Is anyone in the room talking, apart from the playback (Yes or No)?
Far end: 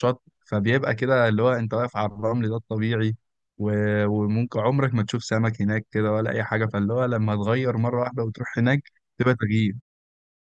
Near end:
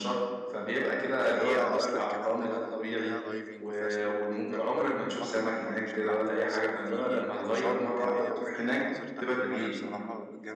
Yes